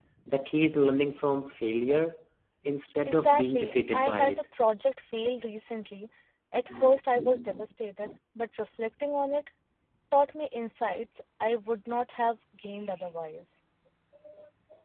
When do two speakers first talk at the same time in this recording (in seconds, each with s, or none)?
3.0 s